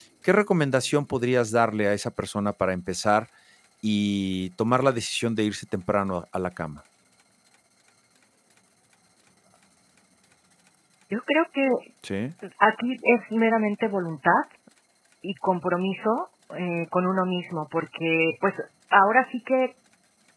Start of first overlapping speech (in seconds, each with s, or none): none